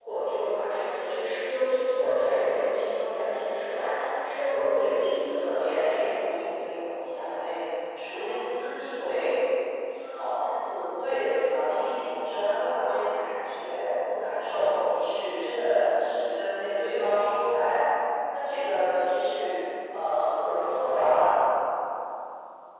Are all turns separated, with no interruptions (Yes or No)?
No